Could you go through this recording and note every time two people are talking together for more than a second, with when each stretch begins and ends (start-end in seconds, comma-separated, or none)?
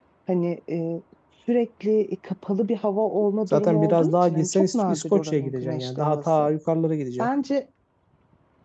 3.5-6.5